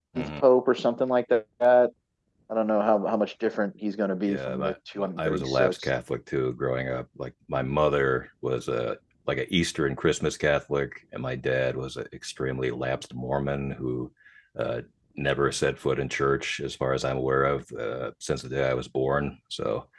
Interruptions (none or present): present